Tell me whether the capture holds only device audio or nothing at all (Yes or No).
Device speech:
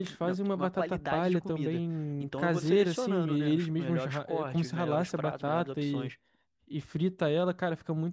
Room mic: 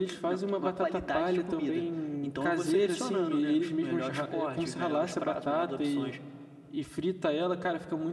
Yes